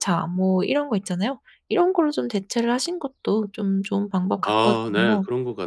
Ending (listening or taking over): taking over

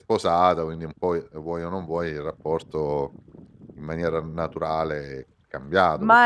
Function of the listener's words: taking over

